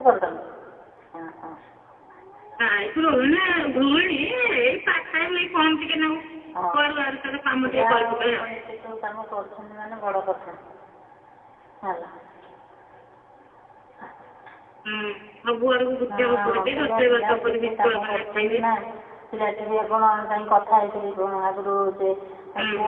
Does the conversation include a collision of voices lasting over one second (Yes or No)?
Yes